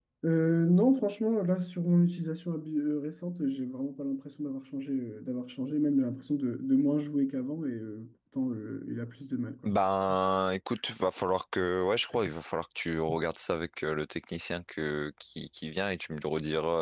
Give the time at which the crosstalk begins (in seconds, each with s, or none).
none